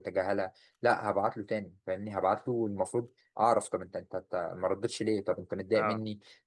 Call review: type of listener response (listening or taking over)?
listening